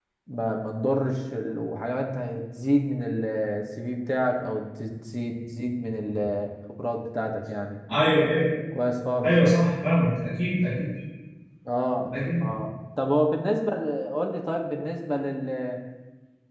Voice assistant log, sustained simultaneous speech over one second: none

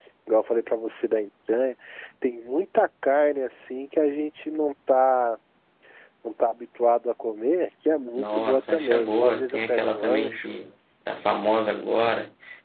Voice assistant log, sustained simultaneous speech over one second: present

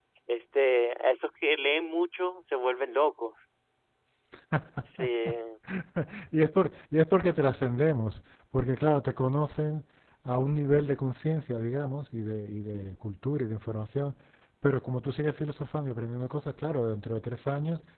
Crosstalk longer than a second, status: none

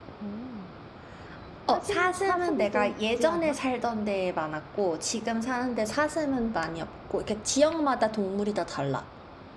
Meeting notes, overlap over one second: present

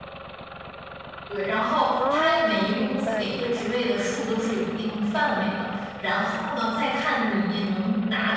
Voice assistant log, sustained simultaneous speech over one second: present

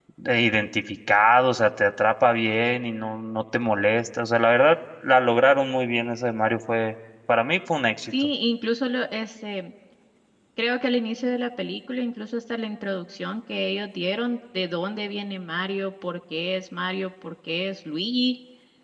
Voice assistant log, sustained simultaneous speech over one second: none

